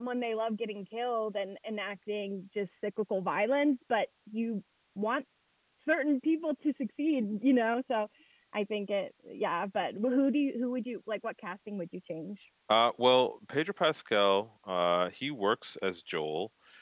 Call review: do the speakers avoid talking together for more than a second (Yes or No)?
Yes